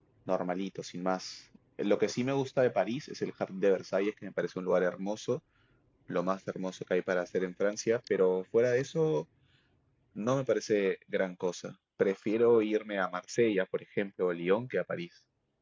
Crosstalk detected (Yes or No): No